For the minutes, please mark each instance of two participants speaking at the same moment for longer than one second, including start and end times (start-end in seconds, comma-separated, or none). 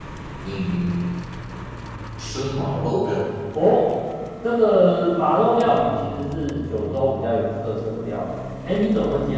none